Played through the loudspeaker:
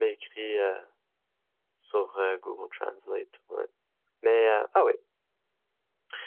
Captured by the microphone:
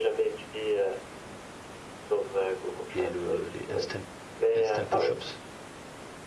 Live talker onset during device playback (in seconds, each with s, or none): 2.9 s